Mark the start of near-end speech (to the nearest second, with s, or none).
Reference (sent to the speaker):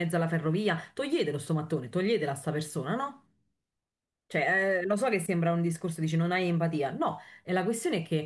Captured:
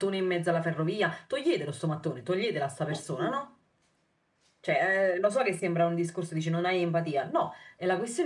3 s